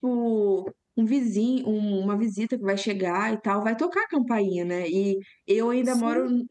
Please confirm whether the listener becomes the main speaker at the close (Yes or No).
No